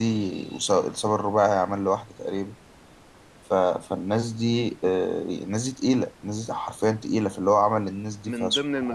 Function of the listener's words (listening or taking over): taking over